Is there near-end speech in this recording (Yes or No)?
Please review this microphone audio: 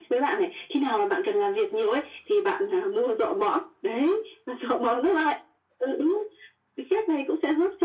No